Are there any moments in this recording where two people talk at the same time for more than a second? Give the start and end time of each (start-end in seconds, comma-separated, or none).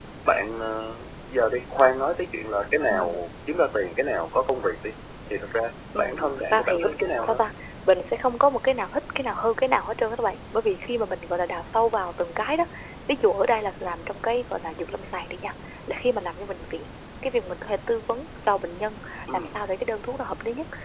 6.0-7.4